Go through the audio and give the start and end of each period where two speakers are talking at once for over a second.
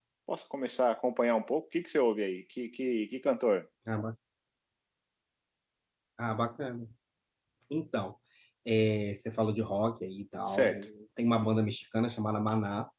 none

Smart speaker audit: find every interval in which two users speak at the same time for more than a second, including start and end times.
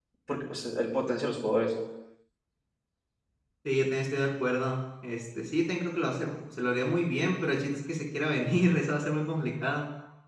none

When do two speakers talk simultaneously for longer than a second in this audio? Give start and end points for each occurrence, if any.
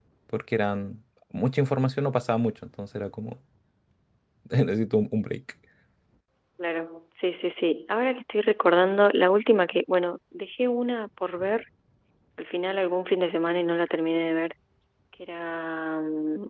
none

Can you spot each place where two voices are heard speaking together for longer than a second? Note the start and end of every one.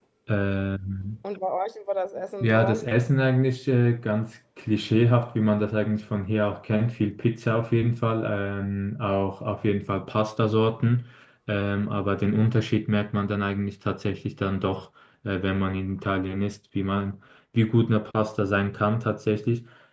none

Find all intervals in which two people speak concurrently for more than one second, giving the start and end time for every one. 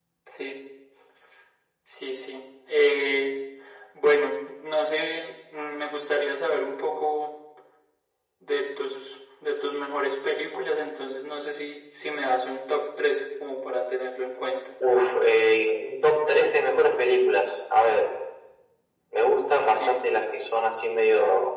none

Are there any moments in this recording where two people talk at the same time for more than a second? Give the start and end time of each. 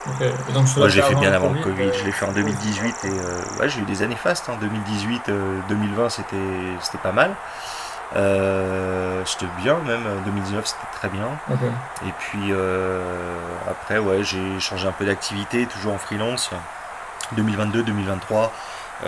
0.8-3.3

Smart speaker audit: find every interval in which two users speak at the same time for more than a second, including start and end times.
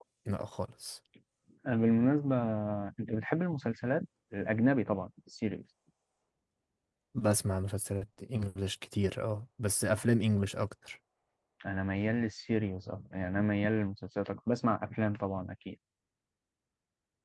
none

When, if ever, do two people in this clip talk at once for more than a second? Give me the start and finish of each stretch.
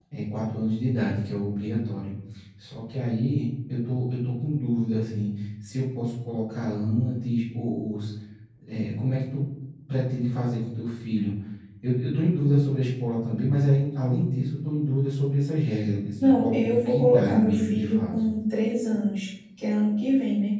16.2-18.0

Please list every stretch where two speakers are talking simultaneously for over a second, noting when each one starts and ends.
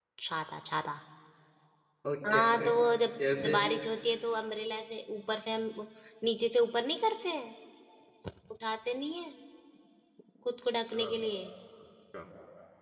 none

